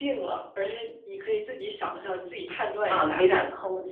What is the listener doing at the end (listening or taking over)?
taking over